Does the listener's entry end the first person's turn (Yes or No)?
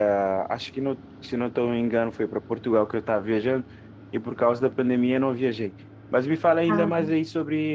No